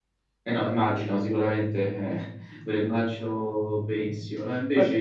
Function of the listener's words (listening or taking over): listening